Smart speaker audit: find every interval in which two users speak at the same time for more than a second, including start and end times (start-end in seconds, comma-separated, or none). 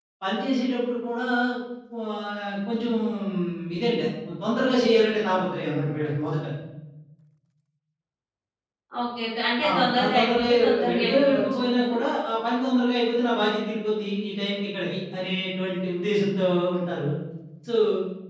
9.7-12.0